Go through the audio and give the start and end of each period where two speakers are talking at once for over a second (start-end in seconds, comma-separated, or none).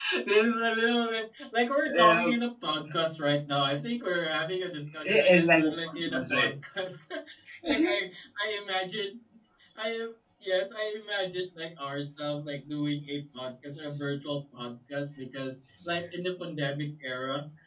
5.0-6.5